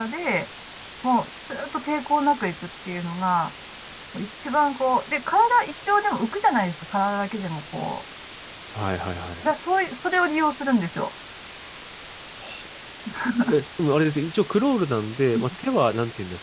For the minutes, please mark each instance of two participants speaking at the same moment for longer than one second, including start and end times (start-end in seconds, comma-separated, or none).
none